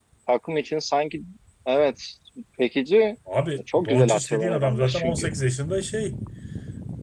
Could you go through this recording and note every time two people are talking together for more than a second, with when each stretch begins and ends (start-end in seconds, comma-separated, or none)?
3.8-5.3